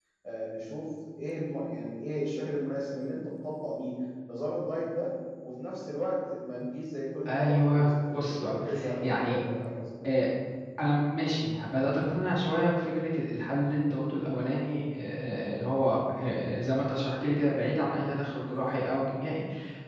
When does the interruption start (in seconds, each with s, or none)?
7.2 s